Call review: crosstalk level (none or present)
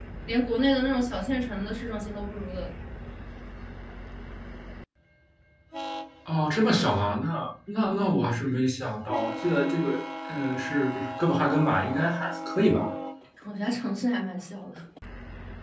none